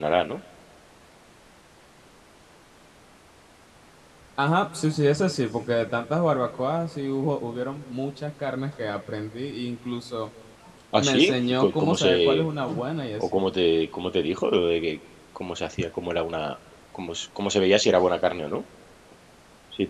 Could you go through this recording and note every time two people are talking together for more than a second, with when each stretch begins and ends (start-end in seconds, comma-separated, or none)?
11.0-12.4